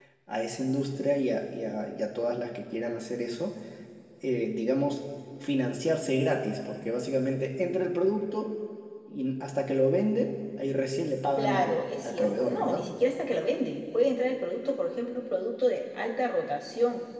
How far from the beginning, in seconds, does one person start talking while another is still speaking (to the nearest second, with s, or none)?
11 s